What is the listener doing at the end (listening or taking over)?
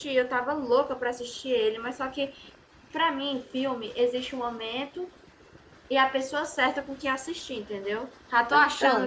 listening